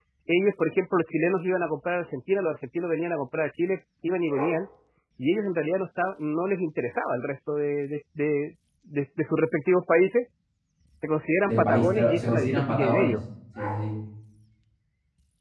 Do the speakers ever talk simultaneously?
Yes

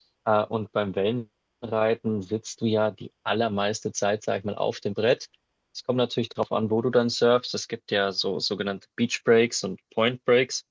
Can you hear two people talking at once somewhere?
No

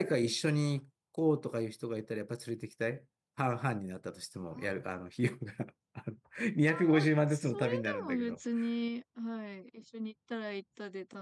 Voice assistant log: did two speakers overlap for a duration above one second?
Yes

